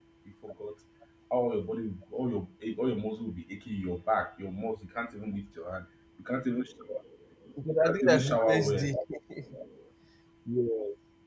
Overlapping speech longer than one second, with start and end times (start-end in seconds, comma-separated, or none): 7.7-8.9